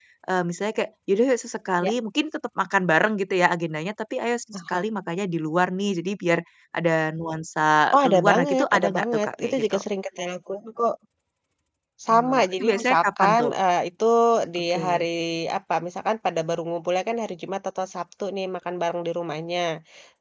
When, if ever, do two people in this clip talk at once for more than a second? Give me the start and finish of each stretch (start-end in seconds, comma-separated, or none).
7.9-9.8, 12.1-13.5